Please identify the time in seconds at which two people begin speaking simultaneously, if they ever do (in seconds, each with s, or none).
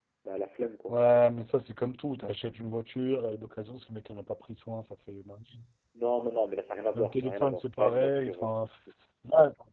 6.9 s